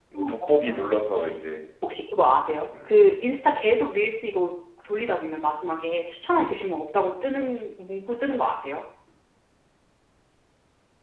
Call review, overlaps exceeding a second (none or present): none